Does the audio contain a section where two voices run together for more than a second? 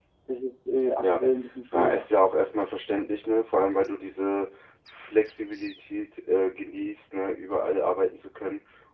No

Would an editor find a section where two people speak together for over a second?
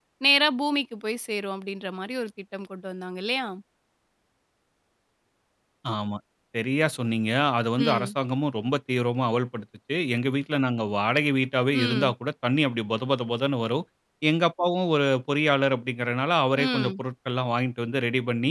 No

